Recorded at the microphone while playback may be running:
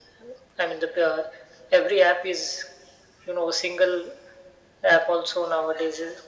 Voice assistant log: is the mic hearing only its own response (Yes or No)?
Yes